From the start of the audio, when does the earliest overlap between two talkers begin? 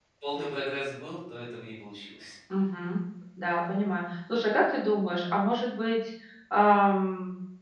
none

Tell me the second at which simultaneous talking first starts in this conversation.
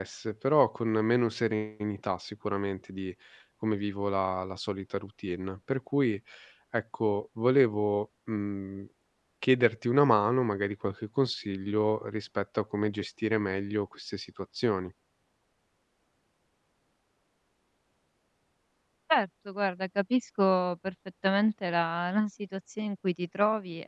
none

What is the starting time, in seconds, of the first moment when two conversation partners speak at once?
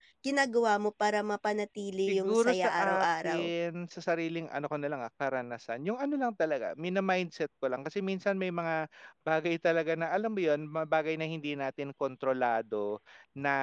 2.1 s

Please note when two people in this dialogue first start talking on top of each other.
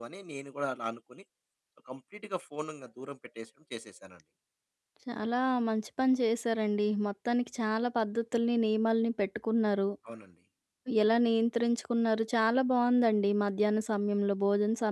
none

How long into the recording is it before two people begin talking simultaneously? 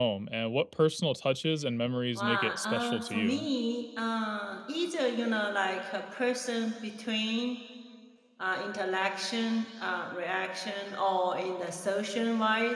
2.2 s

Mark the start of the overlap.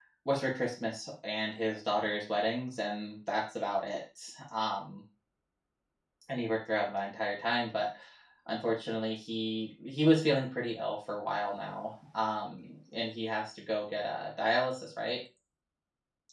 none

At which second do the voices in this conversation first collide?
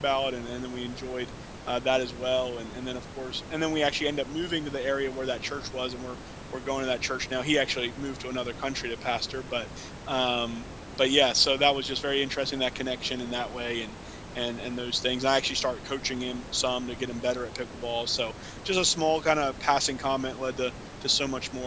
none

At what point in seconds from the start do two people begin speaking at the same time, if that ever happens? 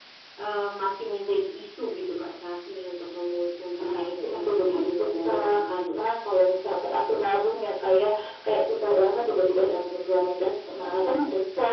3.8 s

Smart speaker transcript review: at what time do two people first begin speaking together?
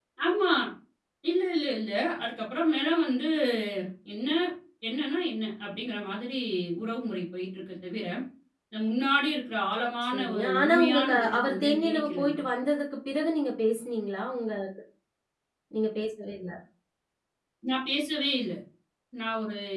10.1 s

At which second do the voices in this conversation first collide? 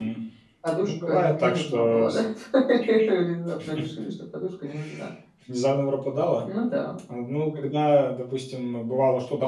0.8 s

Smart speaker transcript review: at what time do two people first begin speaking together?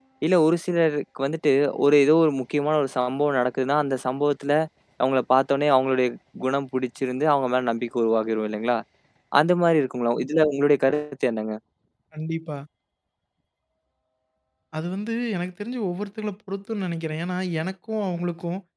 none

